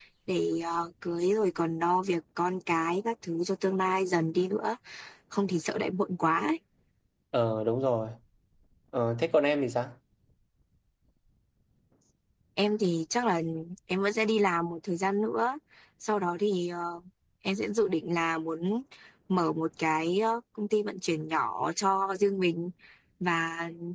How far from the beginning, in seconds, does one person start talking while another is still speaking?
none

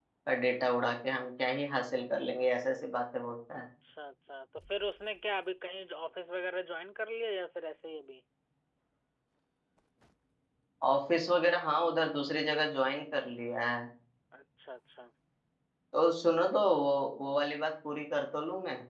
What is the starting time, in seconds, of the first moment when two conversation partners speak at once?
none

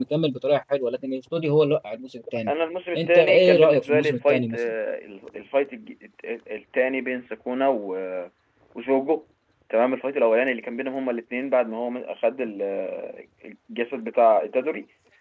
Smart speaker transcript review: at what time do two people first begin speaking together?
3.0 s

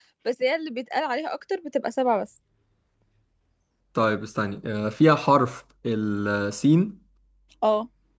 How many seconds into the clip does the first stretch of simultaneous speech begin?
none

